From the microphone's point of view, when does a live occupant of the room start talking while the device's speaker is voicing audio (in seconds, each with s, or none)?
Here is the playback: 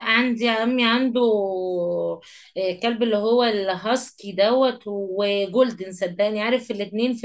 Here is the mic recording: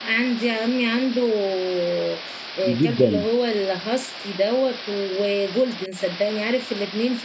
2.7 s